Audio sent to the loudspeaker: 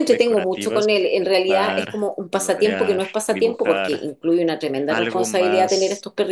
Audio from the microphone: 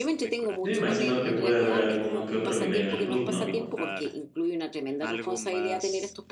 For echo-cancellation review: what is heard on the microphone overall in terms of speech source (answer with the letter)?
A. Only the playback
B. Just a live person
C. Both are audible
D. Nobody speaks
C